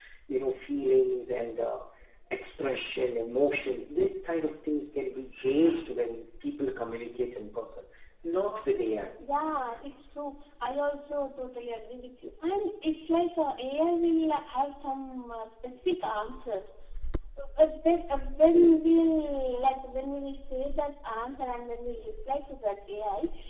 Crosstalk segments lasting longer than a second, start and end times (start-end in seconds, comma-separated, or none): none